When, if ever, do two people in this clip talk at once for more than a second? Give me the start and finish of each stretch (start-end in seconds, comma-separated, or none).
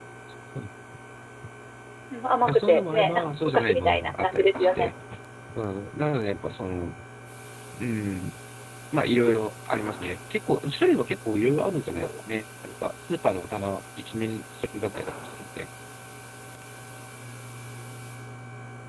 2.4-4.9